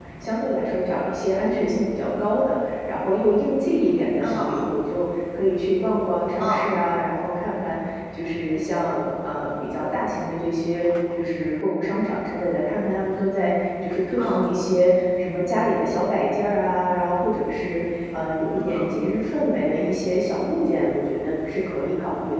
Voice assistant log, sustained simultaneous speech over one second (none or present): none